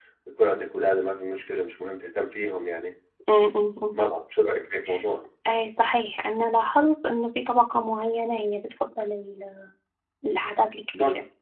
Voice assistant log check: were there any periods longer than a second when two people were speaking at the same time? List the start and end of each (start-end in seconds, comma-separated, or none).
none